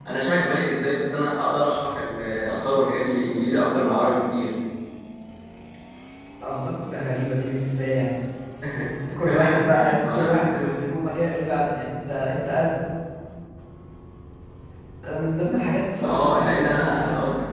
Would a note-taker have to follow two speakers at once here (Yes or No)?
Yes